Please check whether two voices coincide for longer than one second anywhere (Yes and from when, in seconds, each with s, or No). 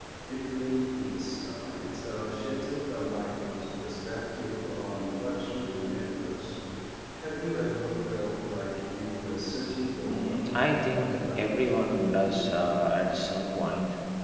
Yes, from 10.0 s